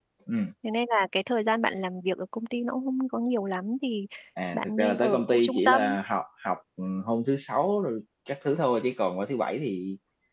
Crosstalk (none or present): present